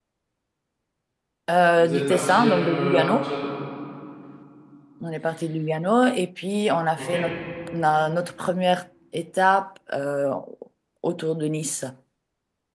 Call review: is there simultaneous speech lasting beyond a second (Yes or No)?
Yes